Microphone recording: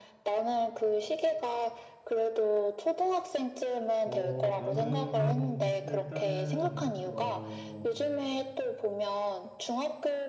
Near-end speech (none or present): present